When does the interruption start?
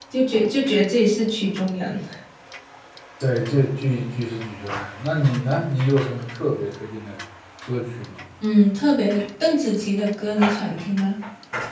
none

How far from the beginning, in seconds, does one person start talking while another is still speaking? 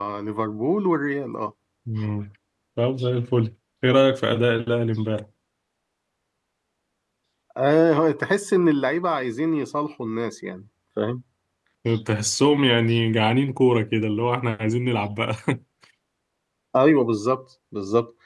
none

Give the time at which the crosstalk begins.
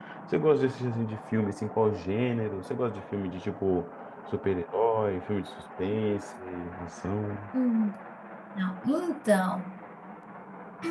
none

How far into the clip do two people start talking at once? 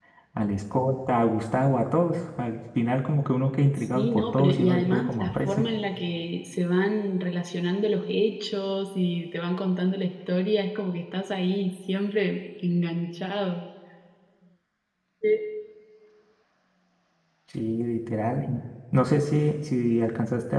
3.8 s

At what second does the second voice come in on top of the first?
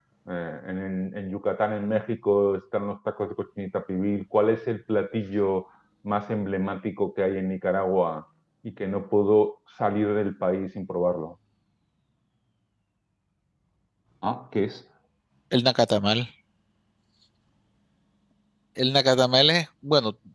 none

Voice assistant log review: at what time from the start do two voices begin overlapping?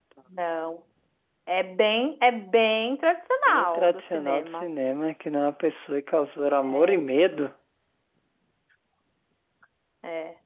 3.5 s

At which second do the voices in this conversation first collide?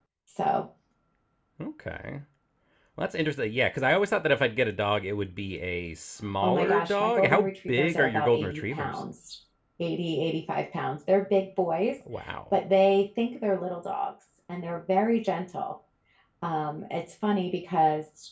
6.4 s

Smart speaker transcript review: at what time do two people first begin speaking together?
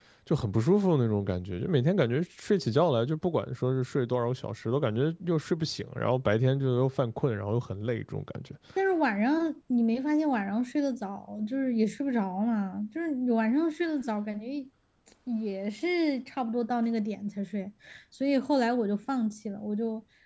none

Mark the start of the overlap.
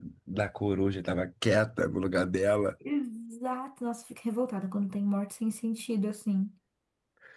none

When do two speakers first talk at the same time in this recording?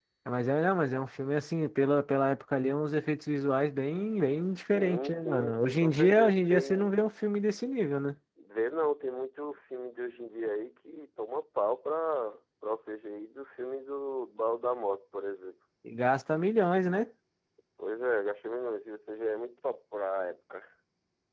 4.5 s

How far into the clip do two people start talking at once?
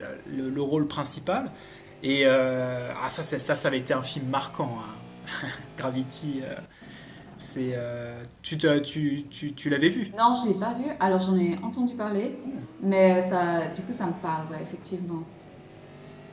none

